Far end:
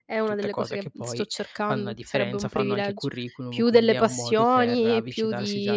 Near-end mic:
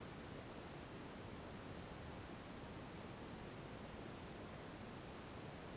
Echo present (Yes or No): No